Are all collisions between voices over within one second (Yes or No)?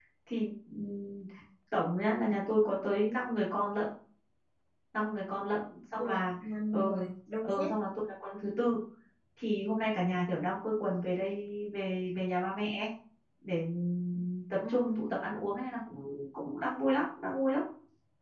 Yes